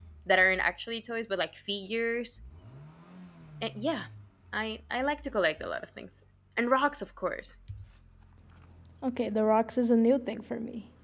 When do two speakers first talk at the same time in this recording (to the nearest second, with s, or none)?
none